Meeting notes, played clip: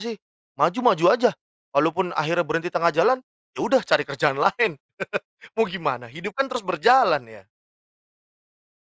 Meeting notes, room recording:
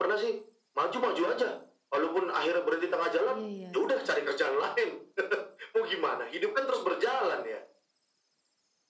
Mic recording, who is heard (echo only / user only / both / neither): both